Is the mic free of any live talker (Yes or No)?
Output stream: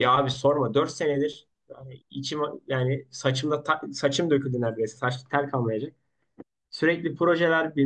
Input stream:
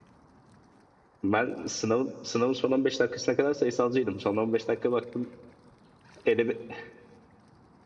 No